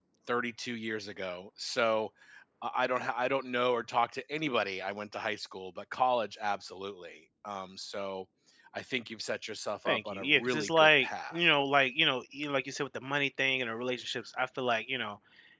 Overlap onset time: 9.8 s

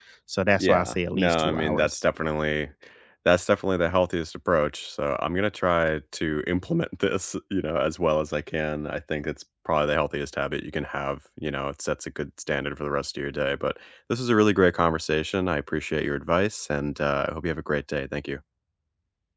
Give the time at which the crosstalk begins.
0.6 s

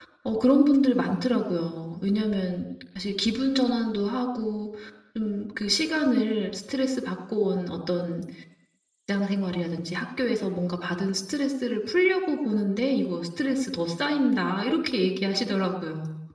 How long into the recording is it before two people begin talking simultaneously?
none

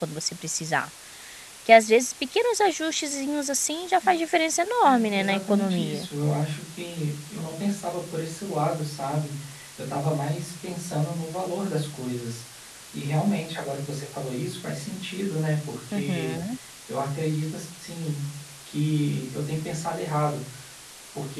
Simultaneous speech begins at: 4.8 s

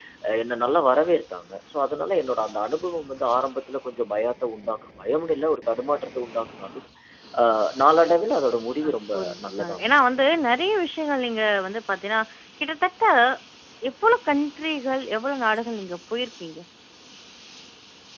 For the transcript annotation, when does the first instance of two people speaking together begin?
8.8 s

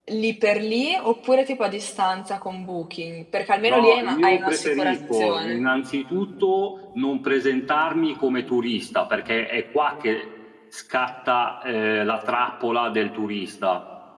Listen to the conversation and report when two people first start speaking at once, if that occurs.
3.7 s

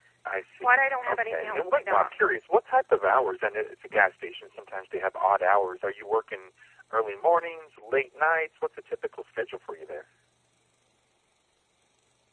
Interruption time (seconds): 0.6 s

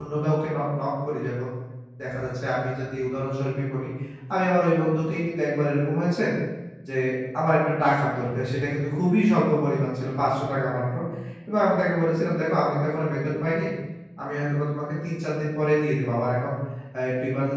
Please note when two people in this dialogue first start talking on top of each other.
none

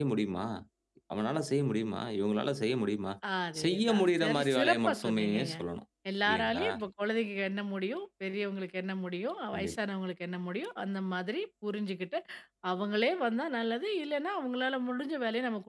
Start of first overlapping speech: 3.6 s

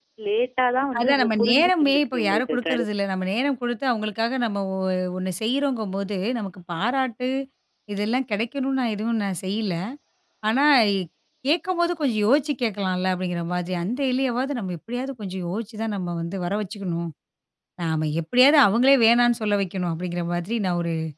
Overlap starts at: 1.0 s

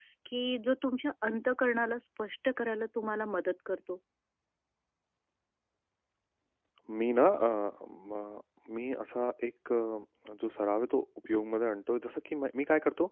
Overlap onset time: none

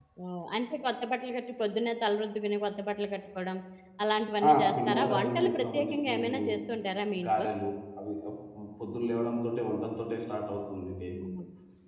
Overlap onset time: 4.5 s

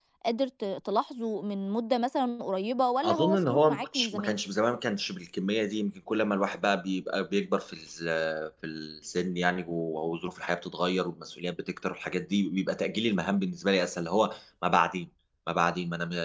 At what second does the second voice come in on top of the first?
3.0 s

